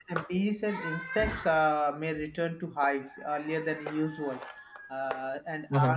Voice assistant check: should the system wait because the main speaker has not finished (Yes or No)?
Yes